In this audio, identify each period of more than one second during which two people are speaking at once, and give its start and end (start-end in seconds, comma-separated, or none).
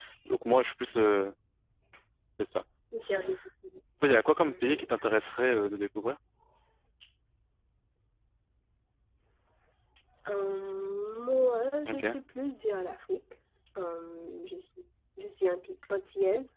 none